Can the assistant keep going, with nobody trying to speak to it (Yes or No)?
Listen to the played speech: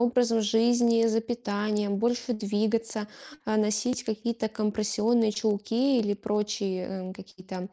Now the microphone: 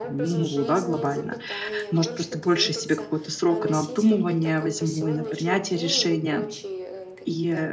No